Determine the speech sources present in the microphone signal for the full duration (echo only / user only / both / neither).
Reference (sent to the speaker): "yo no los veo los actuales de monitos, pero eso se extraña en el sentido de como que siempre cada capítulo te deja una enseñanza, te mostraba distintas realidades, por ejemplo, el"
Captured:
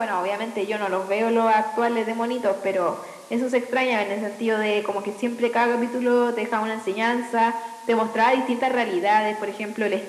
echo only